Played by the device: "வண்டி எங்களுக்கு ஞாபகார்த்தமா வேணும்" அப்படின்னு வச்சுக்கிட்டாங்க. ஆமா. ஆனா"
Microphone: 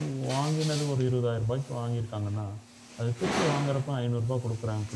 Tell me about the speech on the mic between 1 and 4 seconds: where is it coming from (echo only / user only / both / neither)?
user only